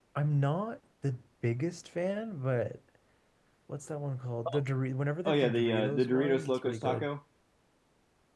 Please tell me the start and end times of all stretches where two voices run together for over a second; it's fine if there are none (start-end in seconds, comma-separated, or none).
5.2-7.1